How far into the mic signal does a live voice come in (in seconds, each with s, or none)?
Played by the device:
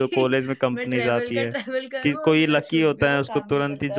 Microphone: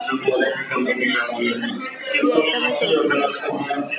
2.2 s